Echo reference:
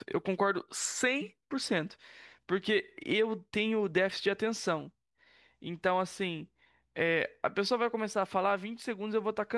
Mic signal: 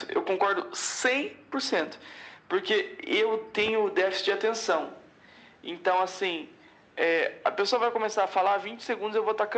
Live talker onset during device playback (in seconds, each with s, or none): none